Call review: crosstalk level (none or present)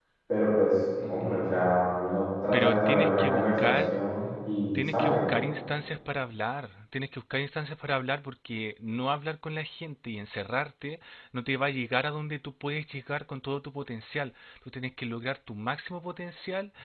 present